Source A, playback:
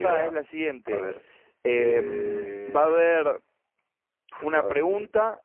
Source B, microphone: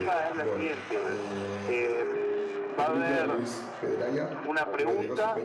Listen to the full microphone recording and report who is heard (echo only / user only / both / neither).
both